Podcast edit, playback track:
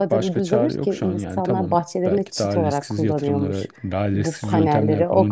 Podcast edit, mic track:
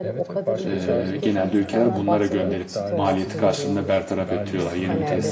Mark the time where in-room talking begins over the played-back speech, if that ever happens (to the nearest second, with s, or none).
1 s